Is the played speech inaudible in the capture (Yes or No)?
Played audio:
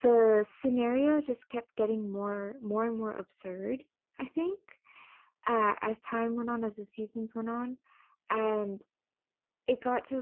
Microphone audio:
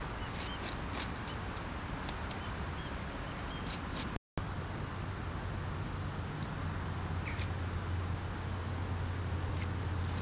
Yes